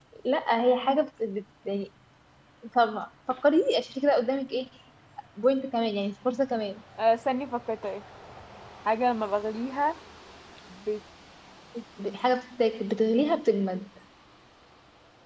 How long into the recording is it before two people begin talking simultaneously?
none

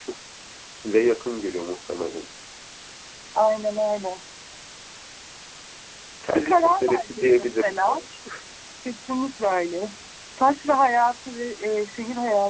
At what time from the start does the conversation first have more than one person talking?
6.3 s

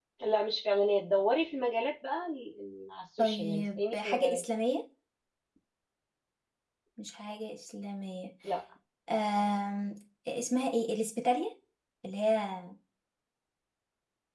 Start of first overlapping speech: 3.2 s

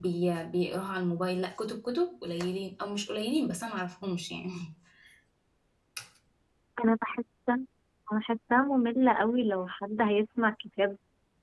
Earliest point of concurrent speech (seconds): none

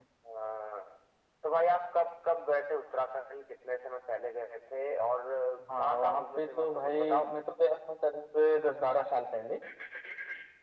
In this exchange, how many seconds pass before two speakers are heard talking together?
5.8 s

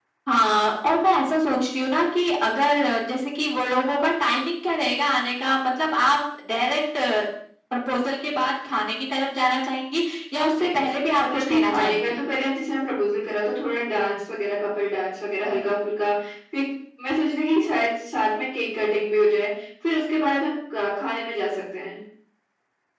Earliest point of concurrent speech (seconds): 10.5 s

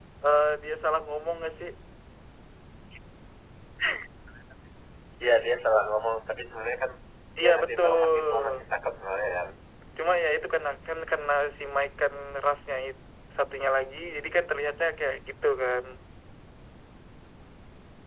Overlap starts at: 7.4 s

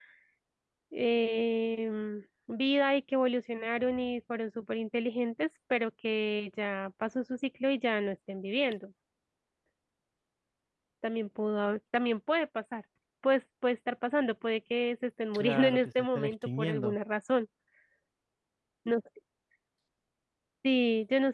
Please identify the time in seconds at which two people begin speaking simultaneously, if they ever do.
15.3 s

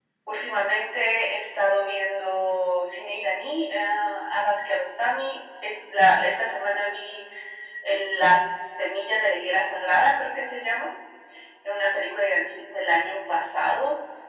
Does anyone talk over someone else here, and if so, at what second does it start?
none

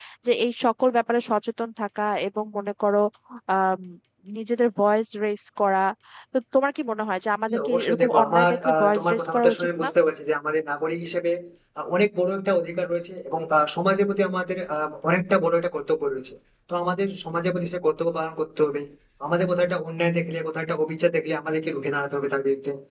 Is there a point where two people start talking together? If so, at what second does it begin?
7.5 s

